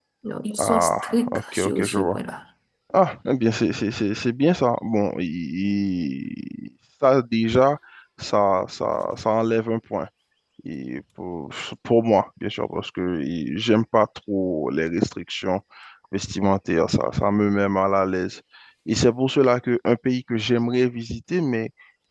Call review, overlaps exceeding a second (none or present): present